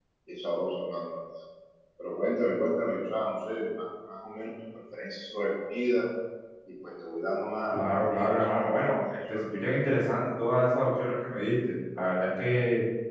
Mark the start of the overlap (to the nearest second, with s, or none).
8 s